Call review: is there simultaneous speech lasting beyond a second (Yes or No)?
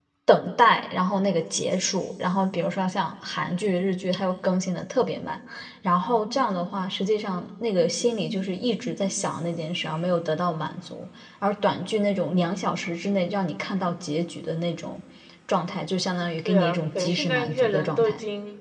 Yes